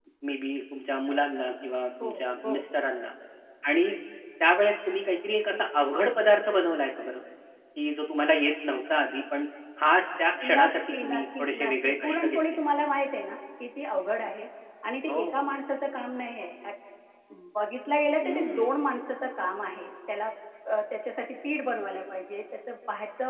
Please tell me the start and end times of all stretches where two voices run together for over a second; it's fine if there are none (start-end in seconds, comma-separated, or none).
10.4-12.4